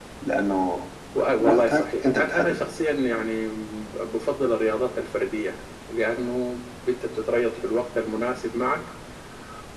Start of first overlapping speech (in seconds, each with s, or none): 1.4 s